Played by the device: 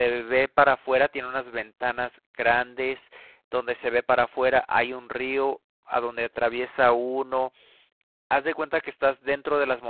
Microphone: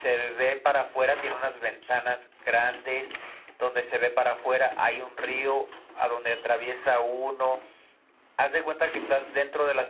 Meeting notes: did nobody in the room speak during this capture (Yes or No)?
Yes